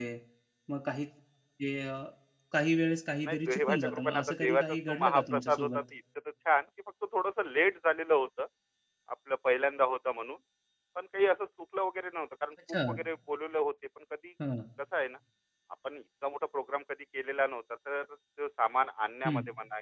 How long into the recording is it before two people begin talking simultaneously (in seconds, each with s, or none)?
3.2 s